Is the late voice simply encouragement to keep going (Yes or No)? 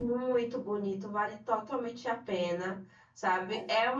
Yes